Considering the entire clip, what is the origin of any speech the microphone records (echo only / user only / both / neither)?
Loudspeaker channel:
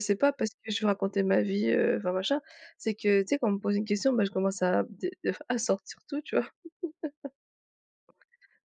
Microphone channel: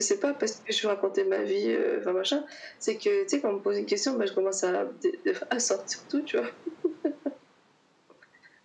echo only